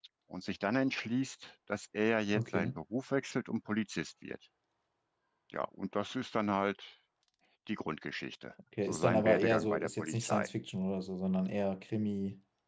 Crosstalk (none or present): present